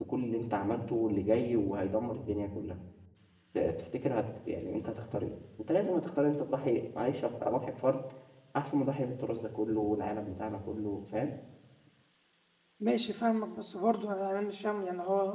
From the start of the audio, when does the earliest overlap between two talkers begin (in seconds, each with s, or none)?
none